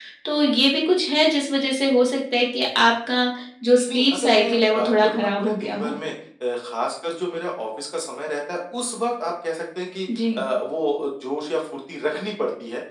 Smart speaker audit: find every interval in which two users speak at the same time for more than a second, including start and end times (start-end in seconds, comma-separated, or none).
3.9-5.9